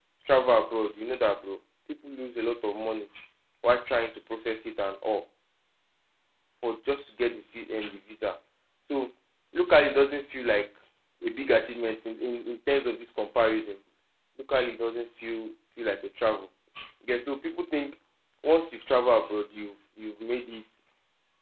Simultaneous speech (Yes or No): No